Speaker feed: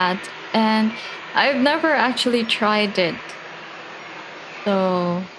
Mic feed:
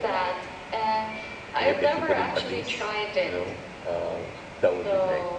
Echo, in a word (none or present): present